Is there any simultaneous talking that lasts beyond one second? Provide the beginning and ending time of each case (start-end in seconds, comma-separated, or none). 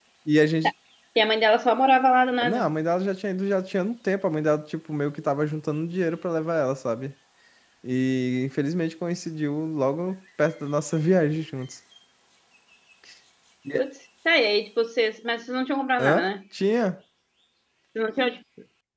none